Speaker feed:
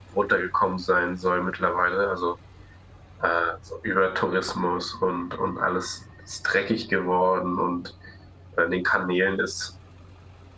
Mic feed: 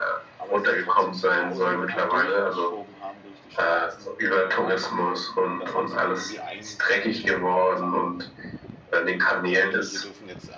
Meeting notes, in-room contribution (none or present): present